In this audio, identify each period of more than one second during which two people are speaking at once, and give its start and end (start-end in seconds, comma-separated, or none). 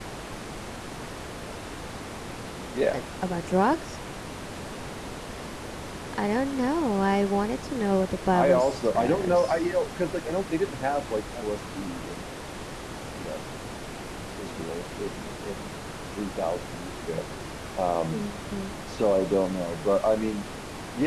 8.3-9.5